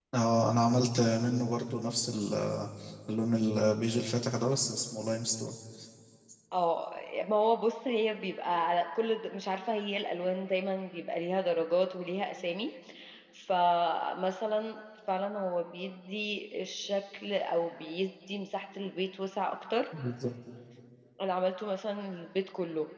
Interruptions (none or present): none